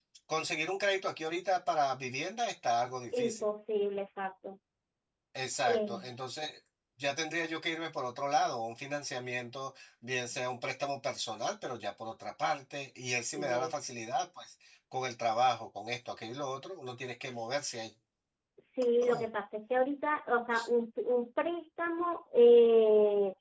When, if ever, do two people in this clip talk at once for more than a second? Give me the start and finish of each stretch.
none

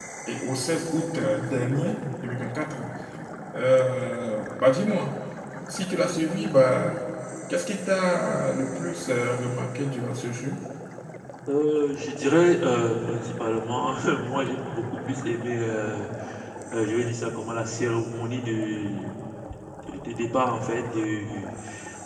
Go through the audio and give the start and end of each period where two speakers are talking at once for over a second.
none

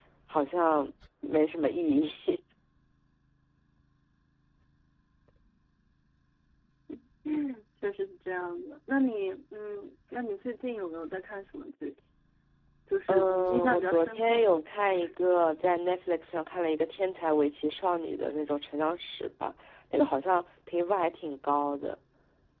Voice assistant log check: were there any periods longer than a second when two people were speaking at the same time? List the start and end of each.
13.1-14.5

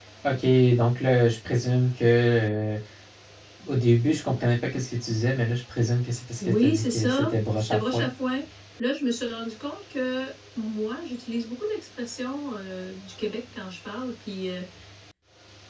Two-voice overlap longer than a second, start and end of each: 6.4-8.1

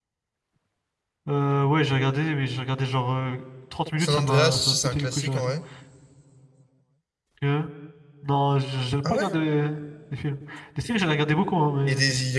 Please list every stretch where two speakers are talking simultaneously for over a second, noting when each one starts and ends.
4.0-5.5

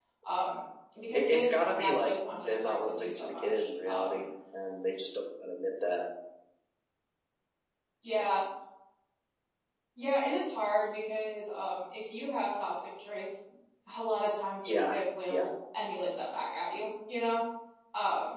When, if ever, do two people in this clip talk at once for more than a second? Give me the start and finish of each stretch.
1.1-4.2

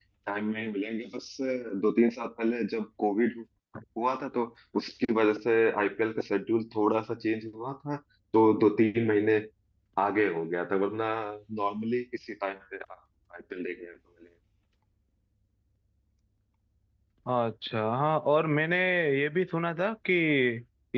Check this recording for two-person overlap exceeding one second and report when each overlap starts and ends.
none

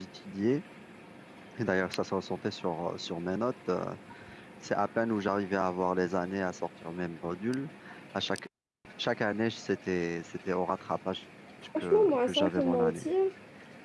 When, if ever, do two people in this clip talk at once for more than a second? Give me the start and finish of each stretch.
11.8-13.1

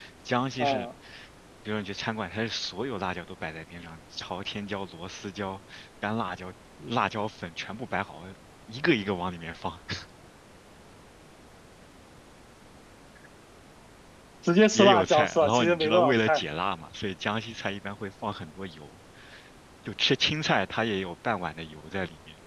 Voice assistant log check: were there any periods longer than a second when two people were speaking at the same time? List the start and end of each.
14.7-16.4

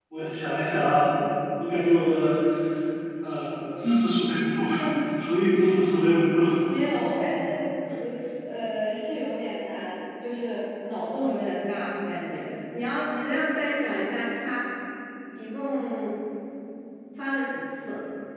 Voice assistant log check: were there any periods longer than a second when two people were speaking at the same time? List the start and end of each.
none

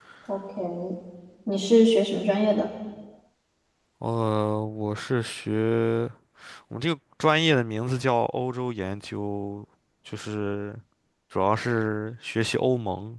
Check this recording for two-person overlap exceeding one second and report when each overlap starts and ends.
none

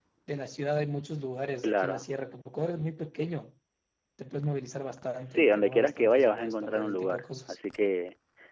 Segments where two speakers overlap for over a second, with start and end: 5.3-7.6

